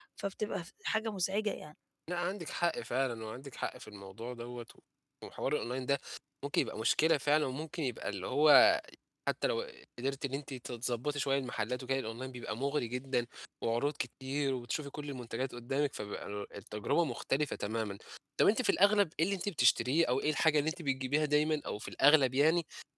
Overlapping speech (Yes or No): No